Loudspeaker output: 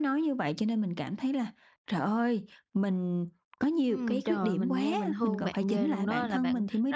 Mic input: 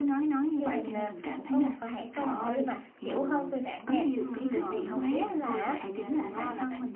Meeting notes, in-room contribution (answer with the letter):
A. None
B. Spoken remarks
B